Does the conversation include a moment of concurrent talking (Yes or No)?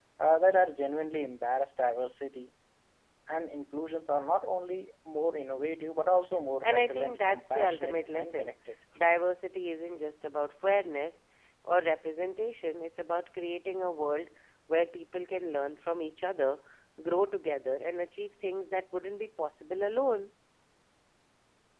Yes